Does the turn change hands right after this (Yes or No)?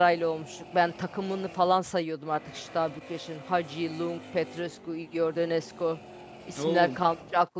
No